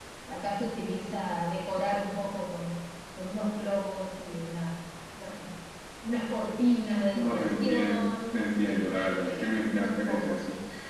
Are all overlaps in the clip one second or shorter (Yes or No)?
No